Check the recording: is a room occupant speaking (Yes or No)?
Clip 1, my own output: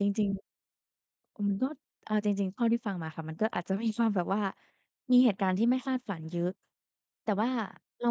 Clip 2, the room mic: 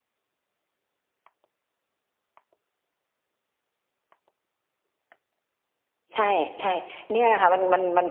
Yes